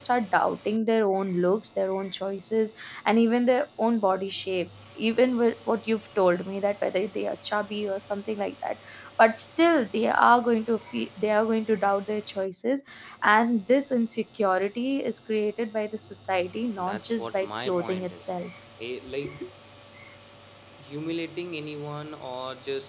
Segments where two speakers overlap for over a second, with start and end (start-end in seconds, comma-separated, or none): 16.8-18.3